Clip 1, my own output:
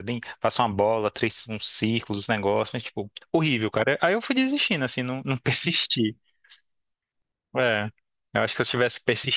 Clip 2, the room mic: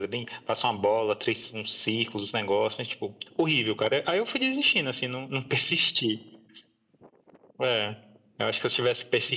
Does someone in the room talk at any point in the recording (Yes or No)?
No